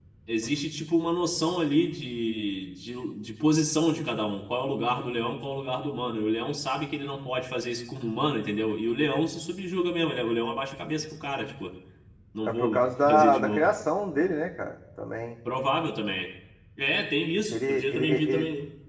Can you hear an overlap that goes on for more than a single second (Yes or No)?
Yes